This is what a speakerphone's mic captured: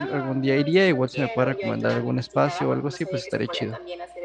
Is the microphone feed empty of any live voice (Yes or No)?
No